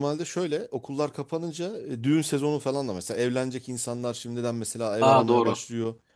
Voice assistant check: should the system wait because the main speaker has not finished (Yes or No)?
Yes